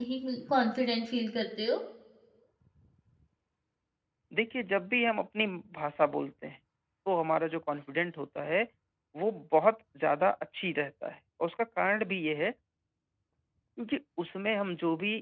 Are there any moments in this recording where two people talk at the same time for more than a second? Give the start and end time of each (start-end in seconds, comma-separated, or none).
none